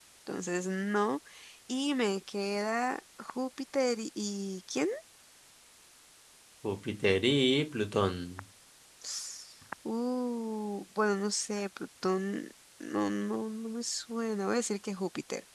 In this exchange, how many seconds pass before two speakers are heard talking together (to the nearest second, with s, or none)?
none